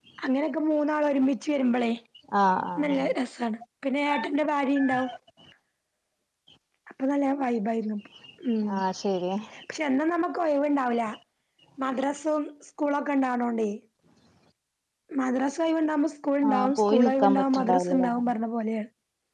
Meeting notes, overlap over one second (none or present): present